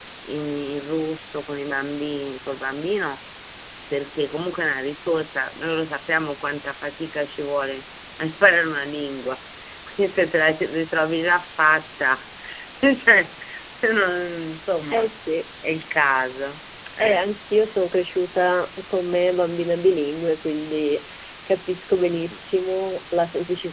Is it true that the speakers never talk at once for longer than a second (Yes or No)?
Yes